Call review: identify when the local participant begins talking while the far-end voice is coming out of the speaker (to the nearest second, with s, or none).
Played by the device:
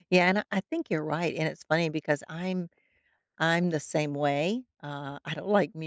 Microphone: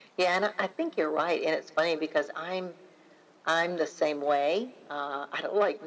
none